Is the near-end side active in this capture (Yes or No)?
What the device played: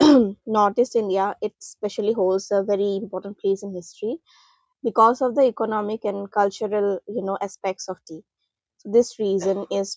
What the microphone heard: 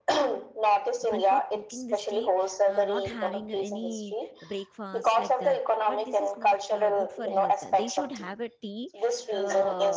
Yes